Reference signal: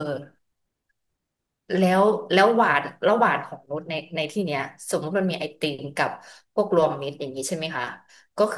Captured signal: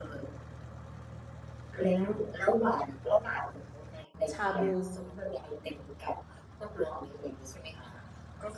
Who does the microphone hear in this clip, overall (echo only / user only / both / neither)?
both